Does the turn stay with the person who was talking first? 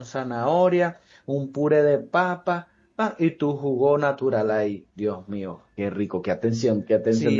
No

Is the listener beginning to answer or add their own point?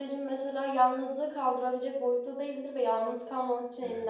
No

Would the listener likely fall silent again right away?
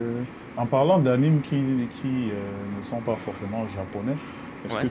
Yes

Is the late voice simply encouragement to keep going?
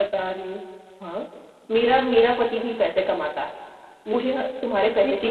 No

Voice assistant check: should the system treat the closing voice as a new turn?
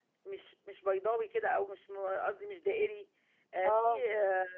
No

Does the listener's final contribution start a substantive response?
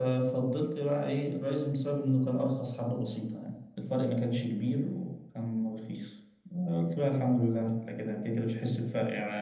No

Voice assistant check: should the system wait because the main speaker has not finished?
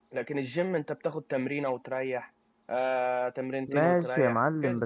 No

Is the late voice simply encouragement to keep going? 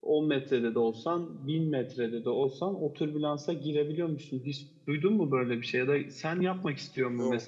Yes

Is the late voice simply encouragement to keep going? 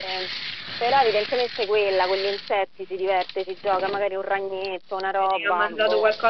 No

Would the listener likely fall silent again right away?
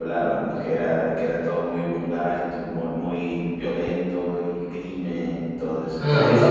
No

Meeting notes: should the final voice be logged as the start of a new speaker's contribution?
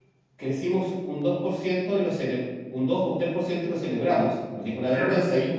No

